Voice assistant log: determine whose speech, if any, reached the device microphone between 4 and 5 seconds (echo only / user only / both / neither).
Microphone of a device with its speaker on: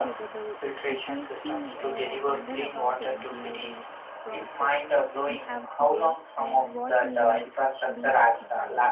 both